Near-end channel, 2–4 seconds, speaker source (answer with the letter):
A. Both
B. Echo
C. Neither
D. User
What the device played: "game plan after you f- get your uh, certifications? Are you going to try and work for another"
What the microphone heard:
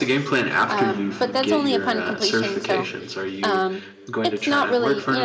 A